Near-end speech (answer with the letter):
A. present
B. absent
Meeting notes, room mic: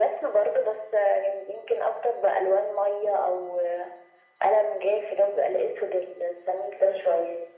B